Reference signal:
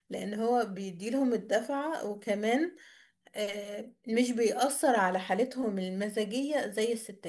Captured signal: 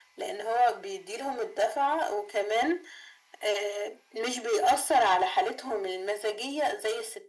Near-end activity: none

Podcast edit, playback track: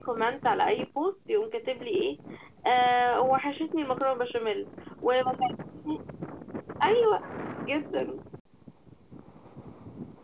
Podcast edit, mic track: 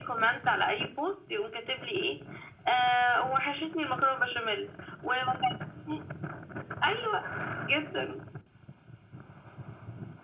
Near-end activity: none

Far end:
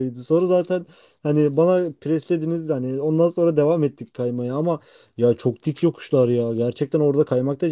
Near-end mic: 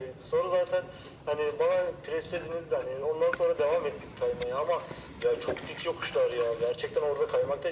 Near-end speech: none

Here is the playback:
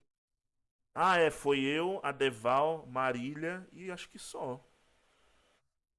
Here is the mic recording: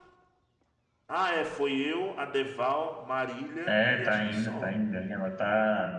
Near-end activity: present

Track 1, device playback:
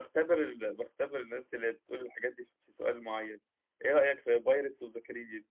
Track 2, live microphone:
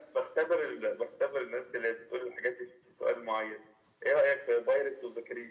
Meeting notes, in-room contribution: none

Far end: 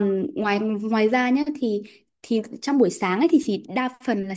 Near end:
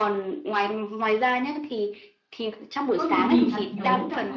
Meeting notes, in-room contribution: present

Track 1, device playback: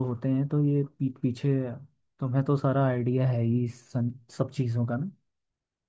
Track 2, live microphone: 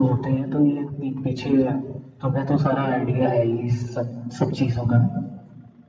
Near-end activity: none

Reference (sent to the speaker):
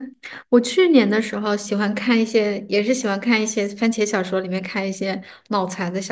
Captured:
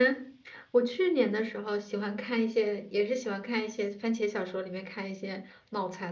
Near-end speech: none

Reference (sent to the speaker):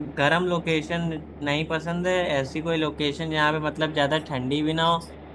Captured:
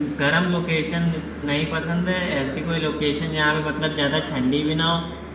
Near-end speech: none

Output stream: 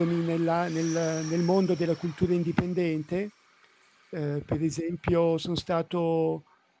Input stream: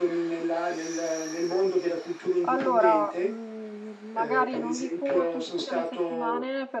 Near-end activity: present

